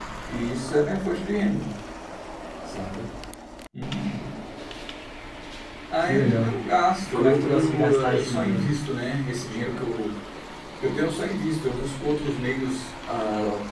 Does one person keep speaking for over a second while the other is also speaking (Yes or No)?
Yes